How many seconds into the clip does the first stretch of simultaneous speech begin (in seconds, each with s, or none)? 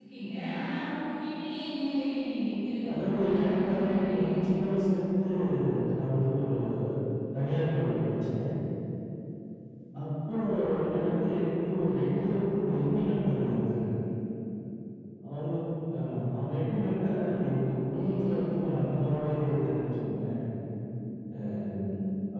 2.9 s